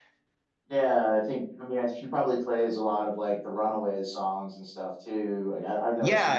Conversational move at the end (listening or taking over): taking over